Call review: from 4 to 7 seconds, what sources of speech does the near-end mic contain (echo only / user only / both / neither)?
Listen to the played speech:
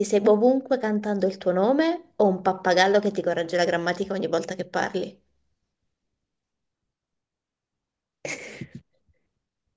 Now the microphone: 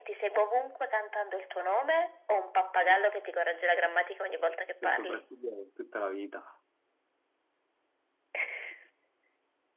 both